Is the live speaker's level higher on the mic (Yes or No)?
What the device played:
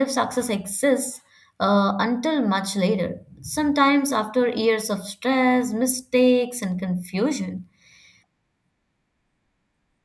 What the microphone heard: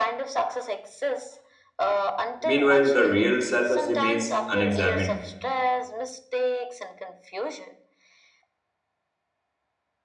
Yes